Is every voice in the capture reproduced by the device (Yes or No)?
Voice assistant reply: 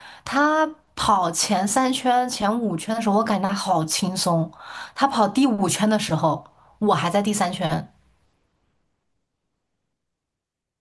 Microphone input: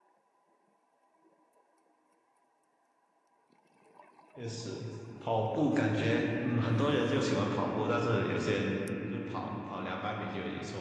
No